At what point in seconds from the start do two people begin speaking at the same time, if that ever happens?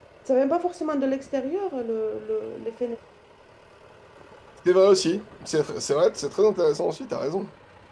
none

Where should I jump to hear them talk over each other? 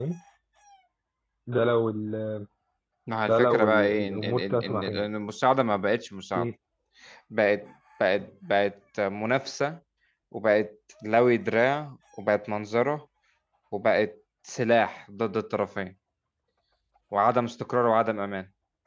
3.3 s

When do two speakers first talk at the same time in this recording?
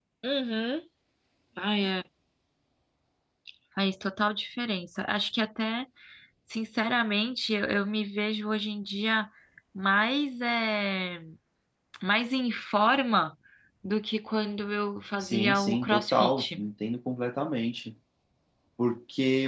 15.2 s

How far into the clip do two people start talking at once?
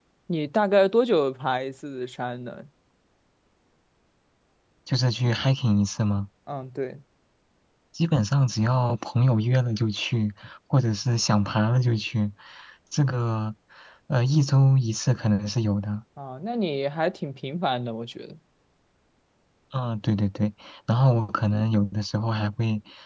none

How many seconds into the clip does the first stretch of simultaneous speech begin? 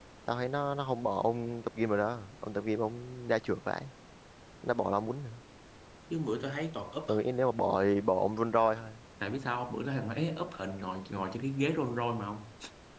none

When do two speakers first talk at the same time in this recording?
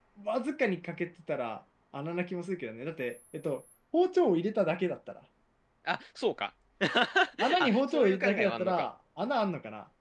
7.6 s

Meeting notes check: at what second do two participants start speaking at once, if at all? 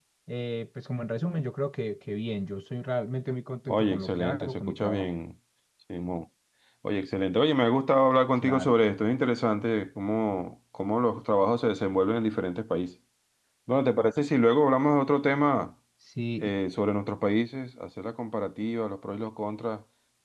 3.7 s

